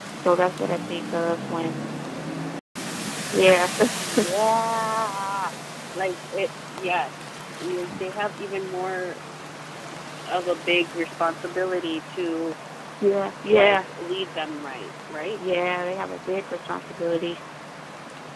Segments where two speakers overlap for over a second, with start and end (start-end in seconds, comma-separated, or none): none